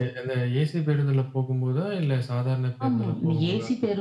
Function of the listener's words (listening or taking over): taking over